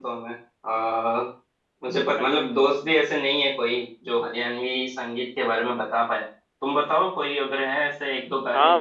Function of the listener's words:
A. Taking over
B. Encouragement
A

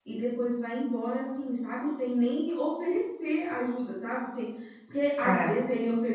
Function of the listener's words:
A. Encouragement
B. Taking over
A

